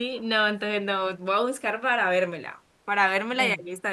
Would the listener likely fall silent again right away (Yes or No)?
Yes